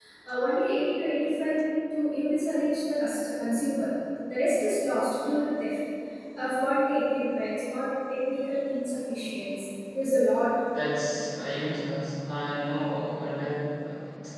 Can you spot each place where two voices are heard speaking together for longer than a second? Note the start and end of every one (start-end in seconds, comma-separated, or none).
none